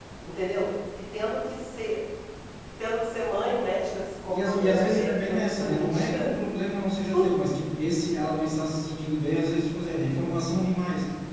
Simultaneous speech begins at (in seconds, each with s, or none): 4.3 s